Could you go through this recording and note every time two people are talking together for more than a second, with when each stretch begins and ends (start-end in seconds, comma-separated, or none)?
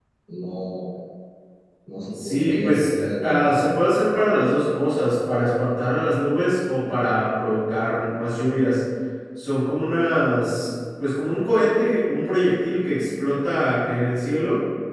2.1-3.6